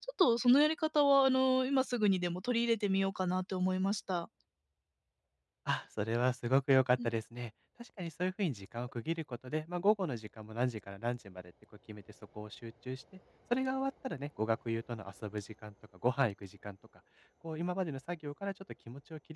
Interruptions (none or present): none